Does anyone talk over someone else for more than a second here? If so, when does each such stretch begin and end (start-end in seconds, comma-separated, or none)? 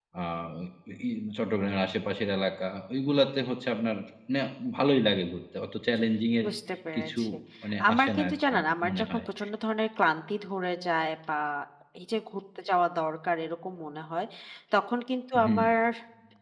7.9-9.2